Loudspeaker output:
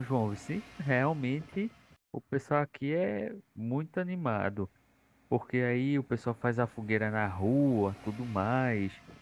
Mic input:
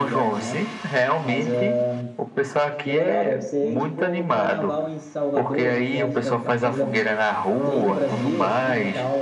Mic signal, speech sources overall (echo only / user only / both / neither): both